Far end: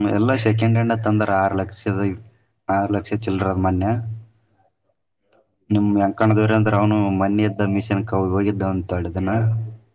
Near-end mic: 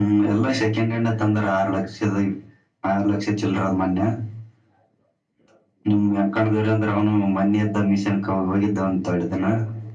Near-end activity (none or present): none